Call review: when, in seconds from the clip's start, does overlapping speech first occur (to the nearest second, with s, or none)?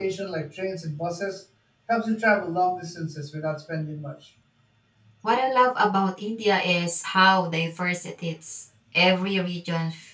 none